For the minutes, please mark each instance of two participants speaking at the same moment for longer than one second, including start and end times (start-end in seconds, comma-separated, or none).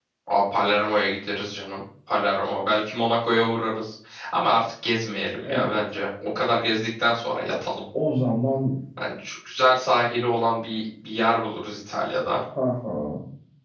none